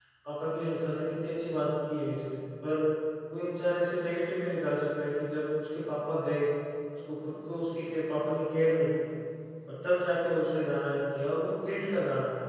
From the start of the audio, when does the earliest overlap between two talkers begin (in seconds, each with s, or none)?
none